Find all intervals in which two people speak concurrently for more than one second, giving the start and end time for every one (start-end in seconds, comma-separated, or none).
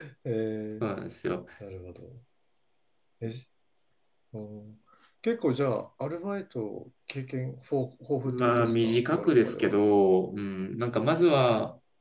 8.2-9.7